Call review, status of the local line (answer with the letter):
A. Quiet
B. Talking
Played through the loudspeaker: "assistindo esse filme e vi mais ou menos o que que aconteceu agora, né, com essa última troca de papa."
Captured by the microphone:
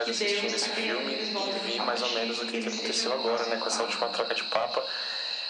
B